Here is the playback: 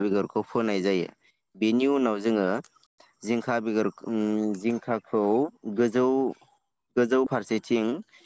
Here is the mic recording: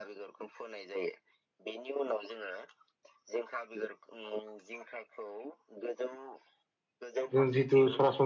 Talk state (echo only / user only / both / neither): both